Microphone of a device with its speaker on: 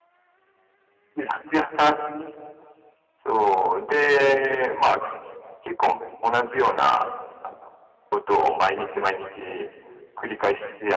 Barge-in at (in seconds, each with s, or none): none